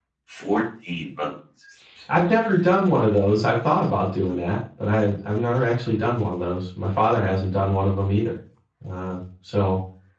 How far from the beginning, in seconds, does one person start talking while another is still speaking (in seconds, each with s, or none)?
none